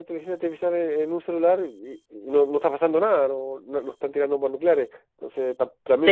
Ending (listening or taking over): taking over